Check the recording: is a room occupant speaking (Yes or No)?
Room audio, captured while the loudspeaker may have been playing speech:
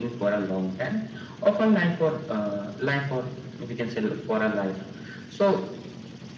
No